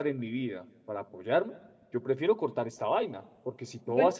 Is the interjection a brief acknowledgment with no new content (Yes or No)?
Yes